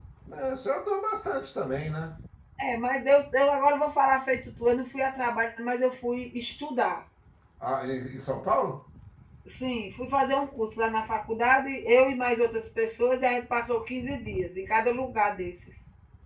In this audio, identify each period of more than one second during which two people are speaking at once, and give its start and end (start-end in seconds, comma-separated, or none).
none